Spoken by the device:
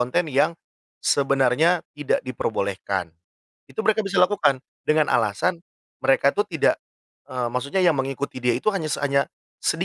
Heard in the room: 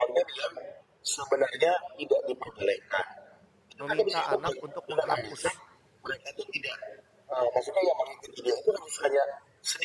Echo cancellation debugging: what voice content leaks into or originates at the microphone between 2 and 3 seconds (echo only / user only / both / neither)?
echo only